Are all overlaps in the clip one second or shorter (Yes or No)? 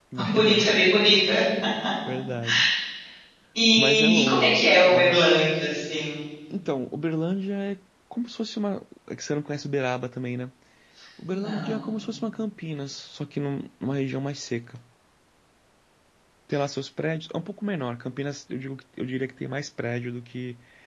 No